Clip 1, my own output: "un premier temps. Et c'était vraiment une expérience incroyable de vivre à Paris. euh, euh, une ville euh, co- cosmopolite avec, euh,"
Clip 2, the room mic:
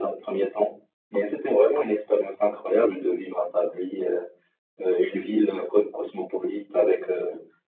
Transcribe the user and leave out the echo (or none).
none